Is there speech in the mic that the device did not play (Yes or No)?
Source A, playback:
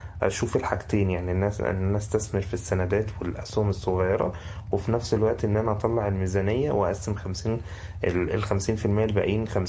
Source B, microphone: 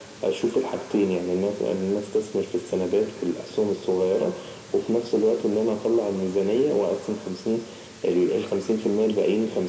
No